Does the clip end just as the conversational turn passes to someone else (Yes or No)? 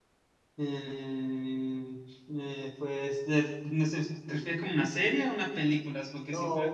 Yes